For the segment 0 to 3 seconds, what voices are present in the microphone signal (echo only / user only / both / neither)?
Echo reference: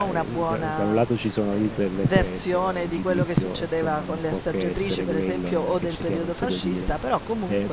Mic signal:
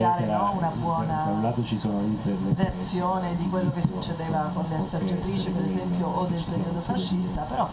echo only